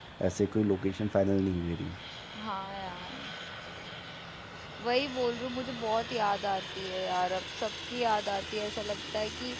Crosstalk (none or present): none